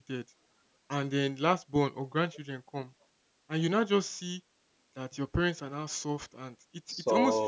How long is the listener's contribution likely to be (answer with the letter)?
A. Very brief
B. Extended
A